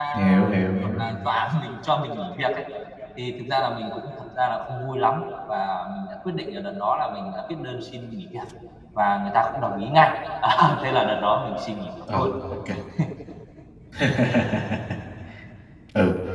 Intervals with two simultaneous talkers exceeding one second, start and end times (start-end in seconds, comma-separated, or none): none